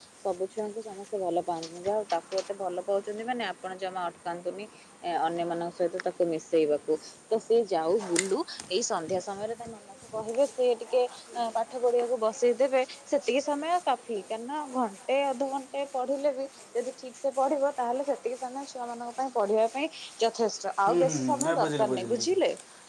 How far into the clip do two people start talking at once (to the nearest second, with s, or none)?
21 s